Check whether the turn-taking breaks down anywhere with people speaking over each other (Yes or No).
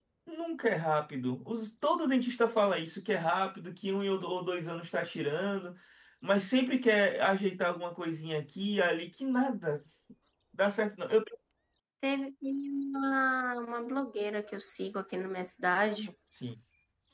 No